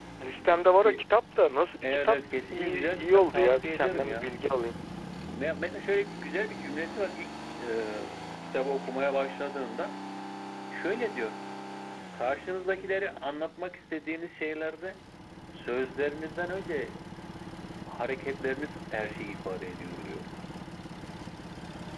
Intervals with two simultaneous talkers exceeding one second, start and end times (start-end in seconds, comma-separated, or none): 1.8-4.3